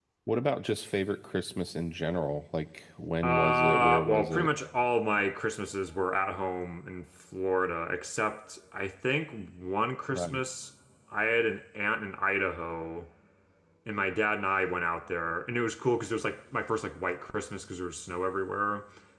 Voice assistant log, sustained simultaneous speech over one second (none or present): present